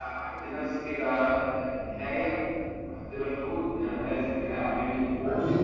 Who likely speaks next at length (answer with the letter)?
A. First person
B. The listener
B